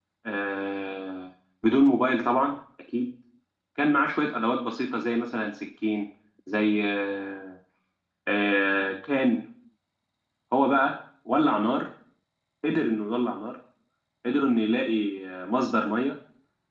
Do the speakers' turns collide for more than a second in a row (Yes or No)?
No